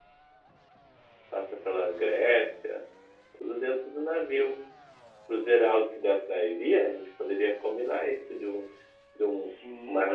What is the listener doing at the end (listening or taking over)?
taking over